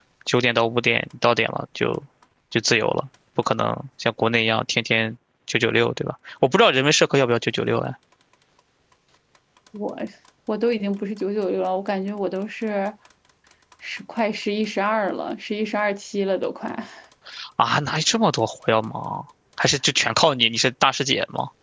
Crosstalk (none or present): none